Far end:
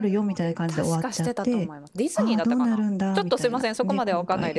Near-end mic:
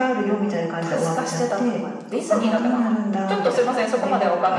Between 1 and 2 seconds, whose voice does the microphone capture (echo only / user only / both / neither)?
echo only